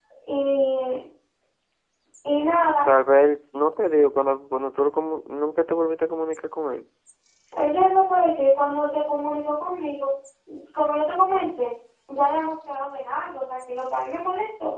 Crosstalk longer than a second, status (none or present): none